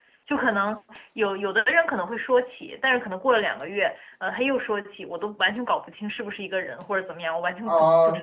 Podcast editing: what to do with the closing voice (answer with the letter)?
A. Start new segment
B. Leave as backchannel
A